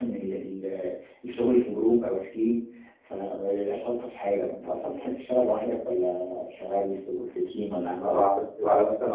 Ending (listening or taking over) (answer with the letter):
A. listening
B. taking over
B